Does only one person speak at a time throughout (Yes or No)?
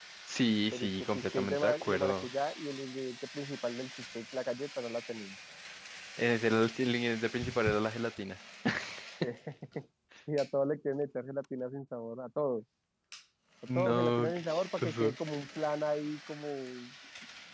No